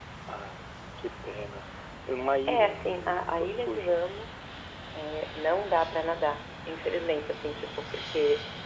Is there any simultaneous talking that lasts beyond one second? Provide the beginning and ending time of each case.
2.5-4.0

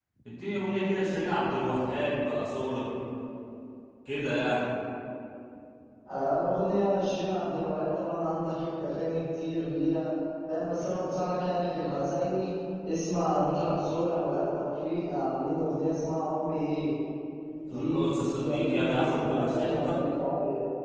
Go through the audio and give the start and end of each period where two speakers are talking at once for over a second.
17.7-20.0

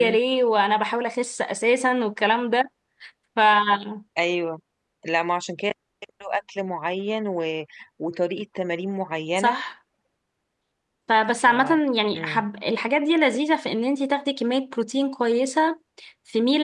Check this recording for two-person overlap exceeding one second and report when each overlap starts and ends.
none

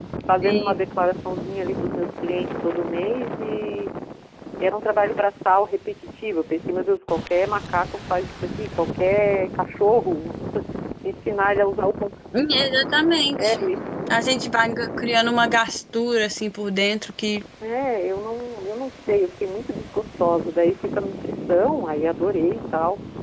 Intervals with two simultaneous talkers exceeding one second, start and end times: none

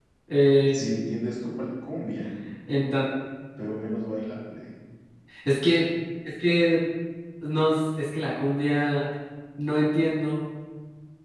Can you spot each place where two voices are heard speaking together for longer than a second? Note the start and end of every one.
none

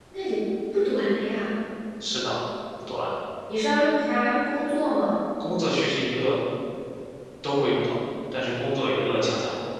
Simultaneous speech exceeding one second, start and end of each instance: none

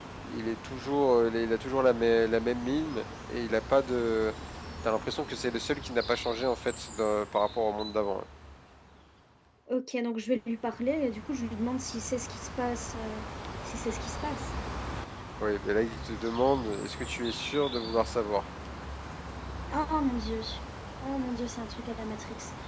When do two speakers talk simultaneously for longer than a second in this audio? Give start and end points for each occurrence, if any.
none

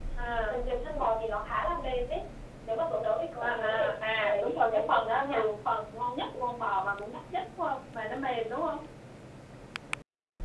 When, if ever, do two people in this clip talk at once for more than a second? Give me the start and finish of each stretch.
3.4-5.4

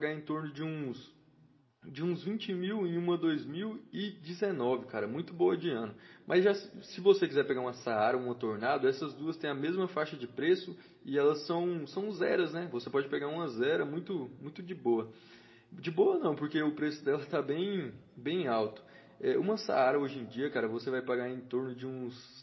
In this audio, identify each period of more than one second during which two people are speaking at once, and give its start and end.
none

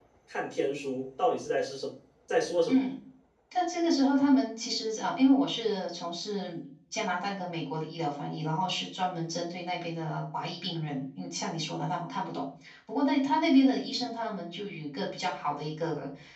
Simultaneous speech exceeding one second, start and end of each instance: none

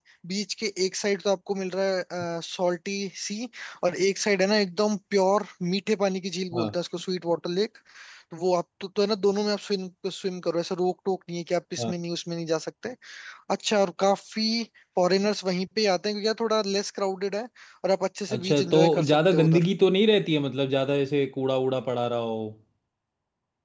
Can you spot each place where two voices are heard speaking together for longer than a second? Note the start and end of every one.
18.3-19.6

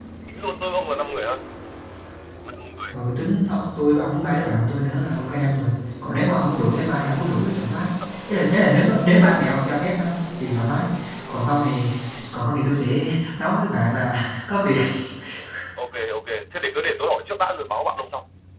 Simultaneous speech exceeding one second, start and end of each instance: none

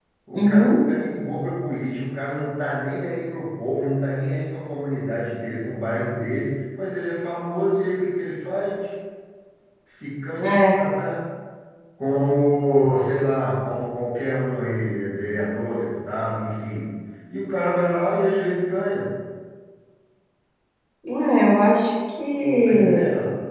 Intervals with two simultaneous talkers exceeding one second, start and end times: none

